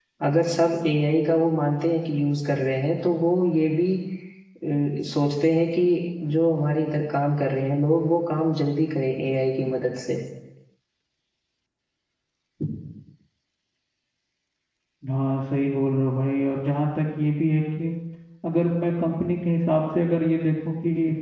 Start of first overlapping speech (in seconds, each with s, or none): none